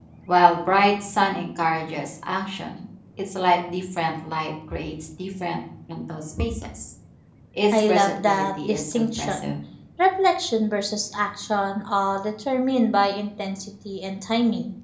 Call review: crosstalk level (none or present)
present